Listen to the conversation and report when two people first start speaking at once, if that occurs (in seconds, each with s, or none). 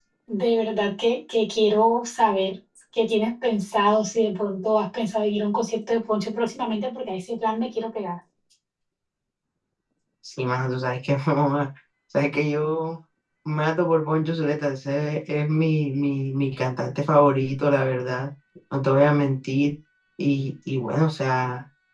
none